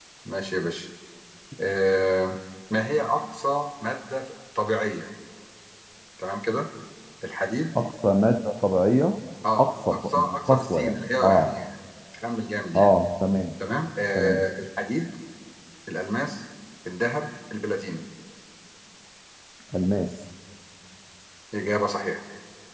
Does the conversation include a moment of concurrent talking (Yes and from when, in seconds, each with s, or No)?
Yes, from 9.6 s